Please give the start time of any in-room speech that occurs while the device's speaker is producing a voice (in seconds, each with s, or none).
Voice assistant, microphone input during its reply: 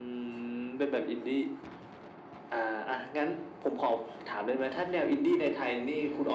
none